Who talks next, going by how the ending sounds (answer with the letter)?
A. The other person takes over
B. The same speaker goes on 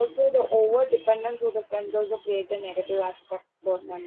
B